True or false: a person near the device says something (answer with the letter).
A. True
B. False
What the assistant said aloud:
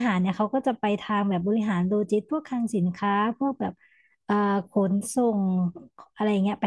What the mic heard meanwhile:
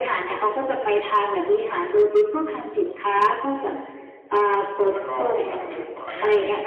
A